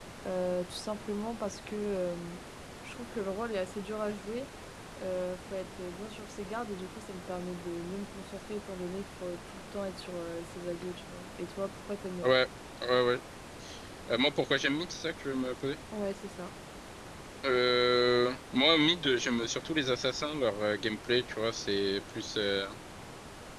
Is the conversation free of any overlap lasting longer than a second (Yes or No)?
Yes